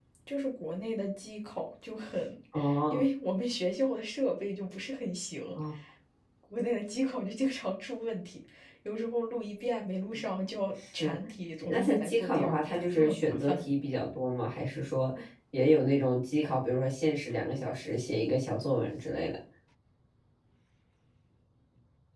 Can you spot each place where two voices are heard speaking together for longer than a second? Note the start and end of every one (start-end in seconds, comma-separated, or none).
11.7-13.6